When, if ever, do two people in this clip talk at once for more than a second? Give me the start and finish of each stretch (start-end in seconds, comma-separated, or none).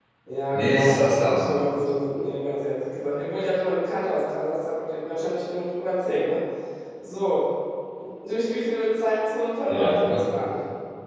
0.5-1.9